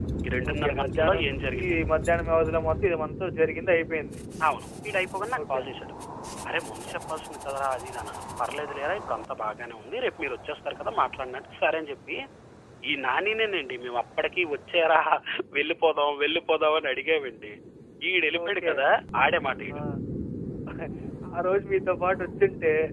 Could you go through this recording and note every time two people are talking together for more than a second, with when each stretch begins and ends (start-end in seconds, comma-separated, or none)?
0.5-1.8